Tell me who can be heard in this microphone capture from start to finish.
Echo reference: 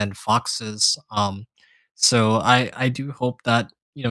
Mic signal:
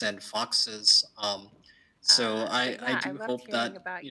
both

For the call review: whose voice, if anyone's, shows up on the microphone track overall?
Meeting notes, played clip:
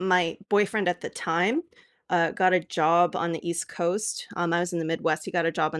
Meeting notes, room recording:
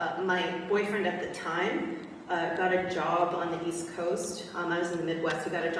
echo only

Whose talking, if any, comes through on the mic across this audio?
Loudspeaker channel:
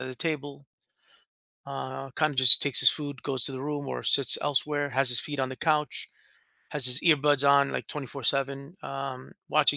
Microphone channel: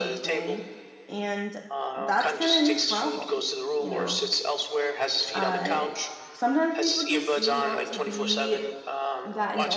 both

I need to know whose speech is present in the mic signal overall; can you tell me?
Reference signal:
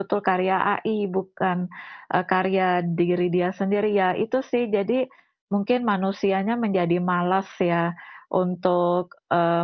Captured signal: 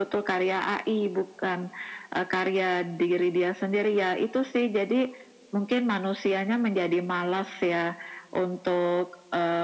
echo only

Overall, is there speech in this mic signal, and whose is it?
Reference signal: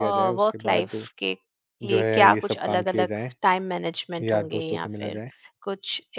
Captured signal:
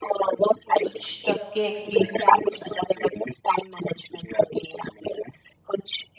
both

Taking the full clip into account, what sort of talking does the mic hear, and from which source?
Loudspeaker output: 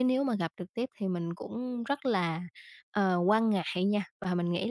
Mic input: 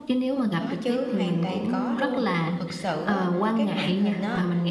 both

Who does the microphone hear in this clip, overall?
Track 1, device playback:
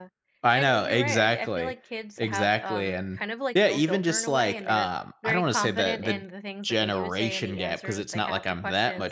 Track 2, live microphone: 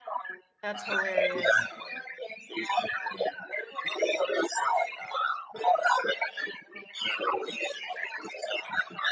both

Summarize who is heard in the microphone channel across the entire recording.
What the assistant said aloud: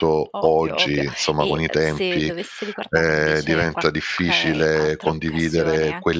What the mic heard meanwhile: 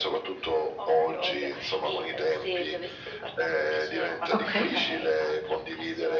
both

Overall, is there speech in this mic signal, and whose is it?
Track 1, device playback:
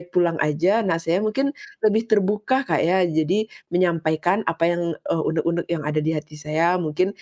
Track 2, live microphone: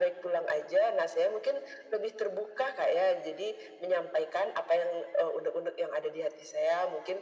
echo only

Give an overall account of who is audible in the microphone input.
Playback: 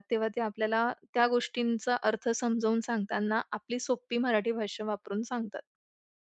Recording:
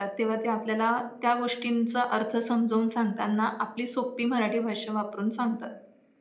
echo only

